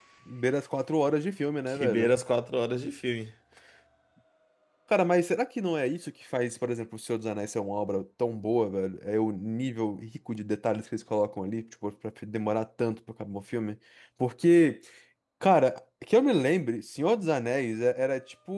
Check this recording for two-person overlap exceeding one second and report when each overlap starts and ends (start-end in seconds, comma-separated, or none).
none